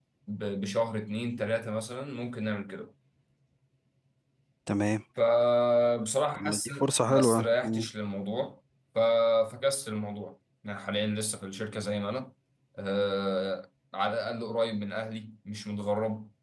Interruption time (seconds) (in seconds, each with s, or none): 6.3 s